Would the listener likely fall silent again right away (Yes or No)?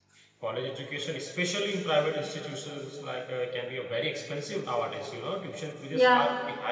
Yes